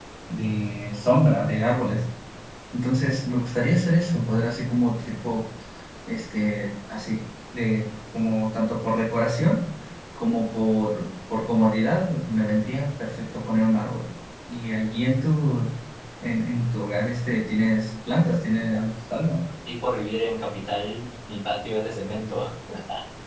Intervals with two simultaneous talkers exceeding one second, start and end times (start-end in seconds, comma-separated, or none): none